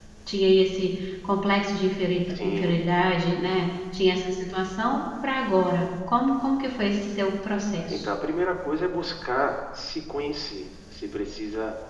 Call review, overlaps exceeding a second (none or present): none